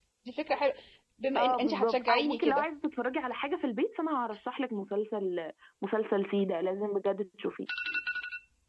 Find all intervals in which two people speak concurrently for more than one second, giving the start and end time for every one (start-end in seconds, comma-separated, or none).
1.4-2.7